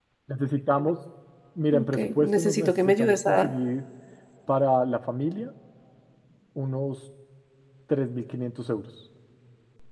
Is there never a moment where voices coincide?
No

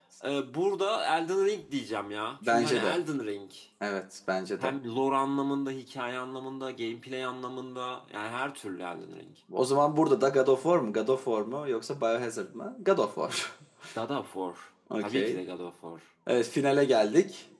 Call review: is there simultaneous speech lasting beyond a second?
No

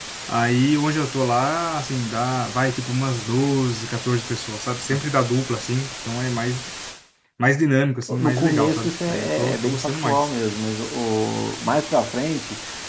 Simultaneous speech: Yes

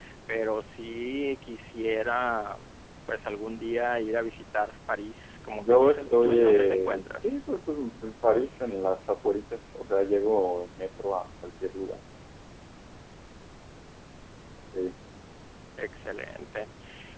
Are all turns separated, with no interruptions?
No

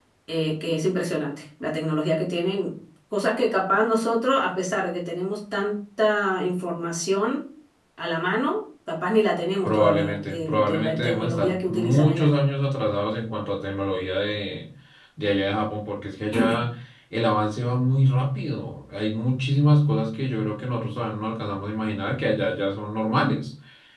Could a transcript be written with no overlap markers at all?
No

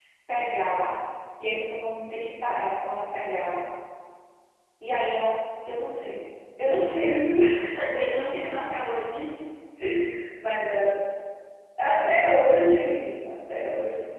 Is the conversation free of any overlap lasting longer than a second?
Yes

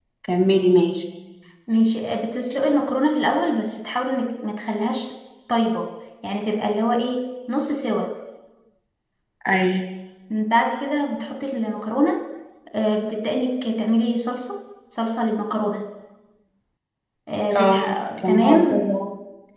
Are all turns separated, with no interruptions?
No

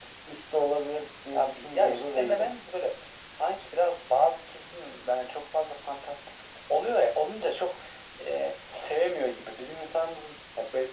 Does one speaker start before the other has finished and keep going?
Yes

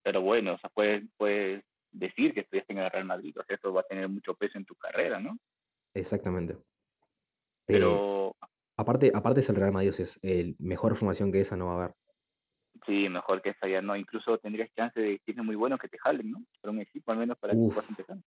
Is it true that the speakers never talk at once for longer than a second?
Yes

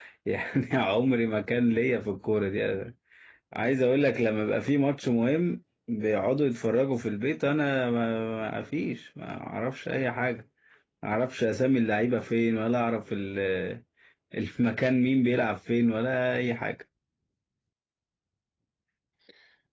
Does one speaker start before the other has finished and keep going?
No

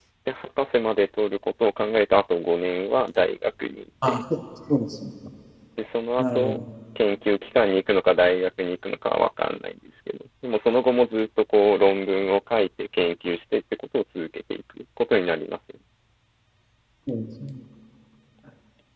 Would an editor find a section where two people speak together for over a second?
No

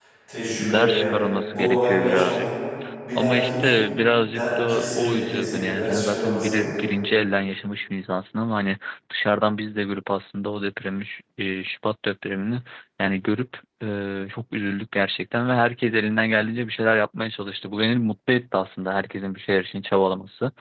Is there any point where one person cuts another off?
Yes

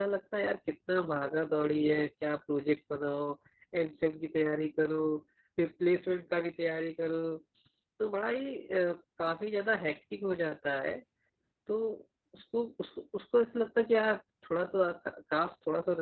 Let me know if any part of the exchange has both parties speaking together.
No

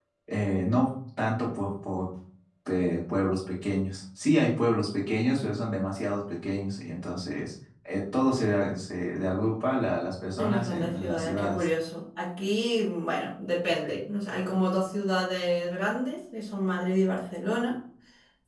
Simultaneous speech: Yes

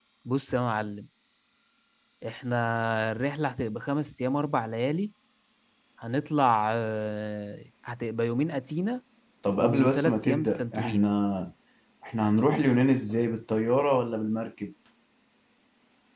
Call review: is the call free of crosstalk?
No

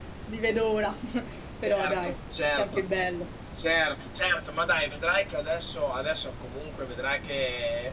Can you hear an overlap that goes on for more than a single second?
No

